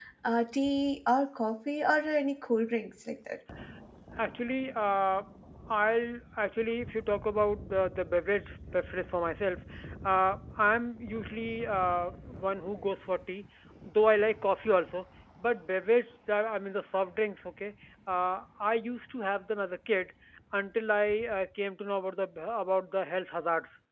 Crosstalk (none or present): none